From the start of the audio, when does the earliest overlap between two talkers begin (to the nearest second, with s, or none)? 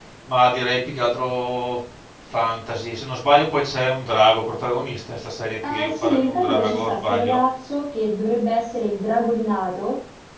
6 s